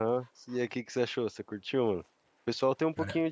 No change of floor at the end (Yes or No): Yes